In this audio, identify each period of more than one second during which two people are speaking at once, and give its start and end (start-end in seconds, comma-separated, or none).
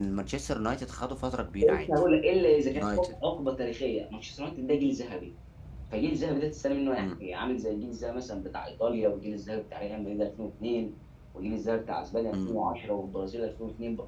none